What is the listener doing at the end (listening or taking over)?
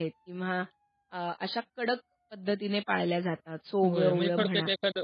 taking over